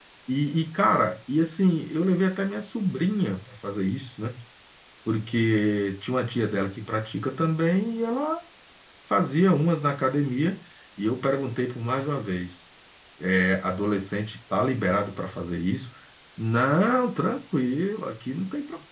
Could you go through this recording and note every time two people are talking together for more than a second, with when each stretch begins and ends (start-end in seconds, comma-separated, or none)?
none